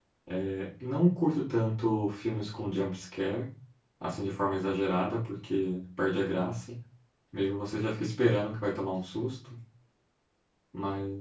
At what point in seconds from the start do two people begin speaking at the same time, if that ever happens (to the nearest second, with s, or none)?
none